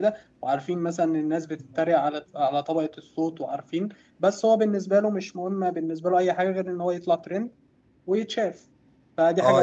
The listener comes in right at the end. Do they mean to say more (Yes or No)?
Yes